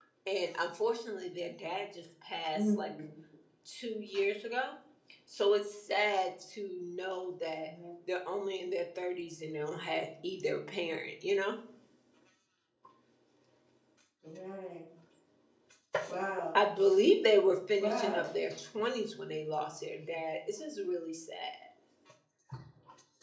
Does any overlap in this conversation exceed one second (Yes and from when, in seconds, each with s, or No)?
No